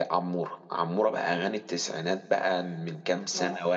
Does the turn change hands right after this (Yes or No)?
No